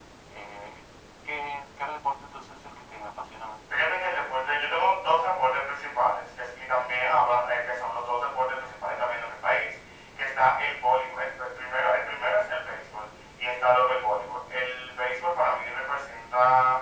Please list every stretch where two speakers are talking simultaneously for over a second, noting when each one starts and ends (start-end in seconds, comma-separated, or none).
none